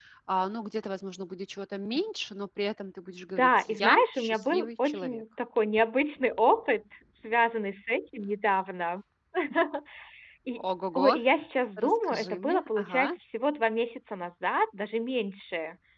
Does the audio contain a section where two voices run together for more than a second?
Yes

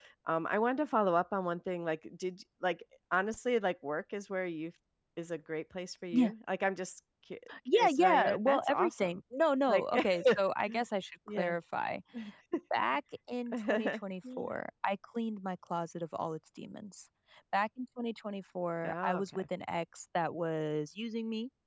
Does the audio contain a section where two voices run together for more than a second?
Yes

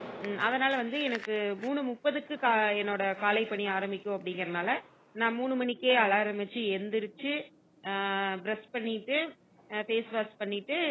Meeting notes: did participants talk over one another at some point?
No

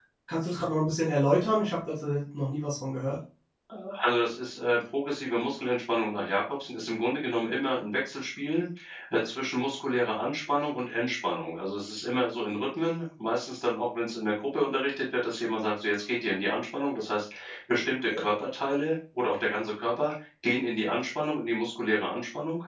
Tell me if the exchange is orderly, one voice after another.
Yes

